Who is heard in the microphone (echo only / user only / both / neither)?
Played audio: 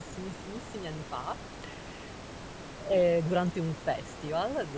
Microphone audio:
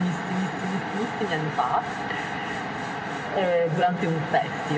echo only